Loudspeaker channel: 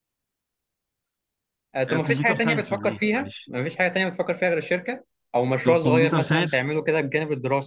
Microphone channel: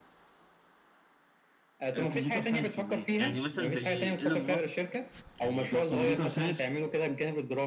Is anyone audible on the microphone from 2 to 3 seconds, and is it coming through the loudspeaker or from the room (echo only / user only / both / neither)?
echo only